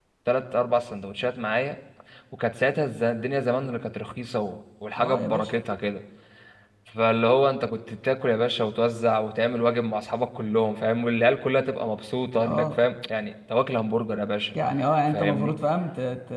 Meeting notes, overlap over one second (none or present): none